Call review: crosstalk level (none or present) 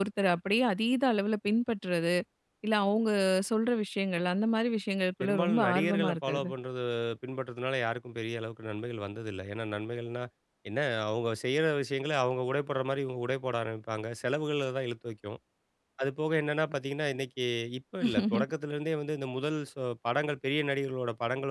present